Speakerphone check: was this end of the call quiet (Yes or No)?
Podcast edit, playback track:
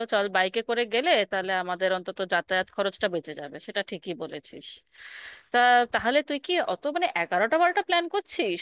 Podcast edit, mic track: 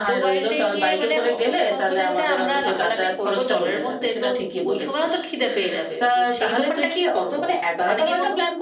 No